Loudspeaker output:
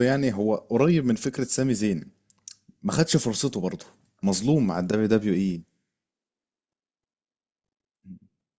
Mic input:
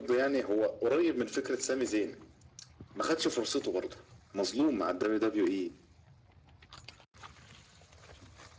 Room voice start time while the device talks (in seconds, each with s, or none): none